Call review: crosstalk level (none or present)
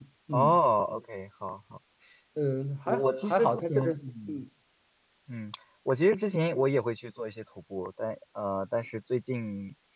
present